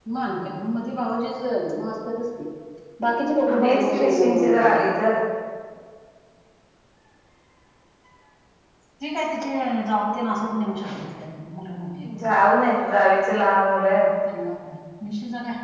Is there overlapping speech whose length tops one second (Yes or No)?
Yes